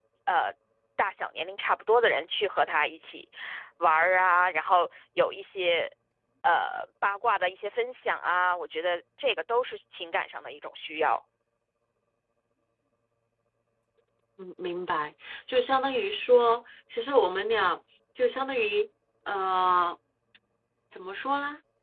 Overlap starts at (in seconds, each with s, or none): none